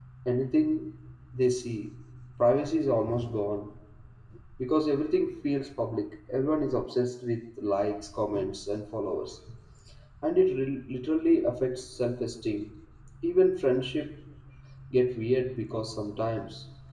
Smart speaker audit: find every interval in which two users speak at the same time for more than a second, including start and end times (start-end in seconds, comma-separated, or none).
none